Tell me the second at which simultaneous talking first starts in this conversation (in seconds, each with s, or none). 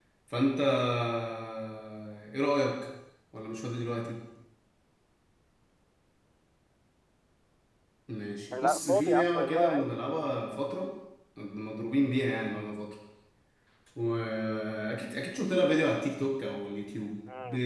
8.5 s